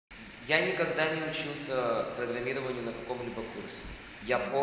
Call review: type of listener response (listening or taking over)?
listening